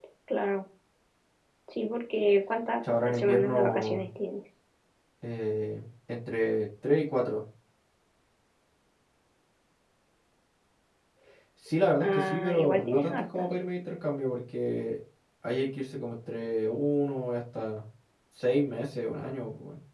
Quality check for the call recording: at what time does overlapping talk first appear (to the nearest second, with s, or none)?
3 s